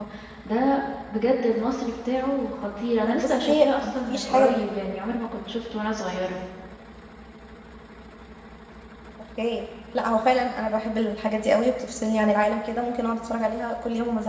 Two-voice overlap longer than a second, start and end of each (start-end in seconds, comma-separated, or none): 3.0-4.5